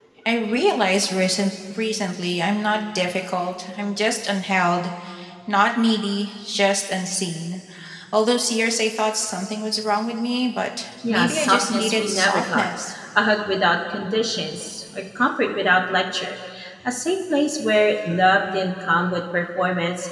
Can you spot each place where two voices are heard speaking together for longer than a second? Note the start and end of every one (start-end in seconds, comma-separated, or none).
11.1-12.7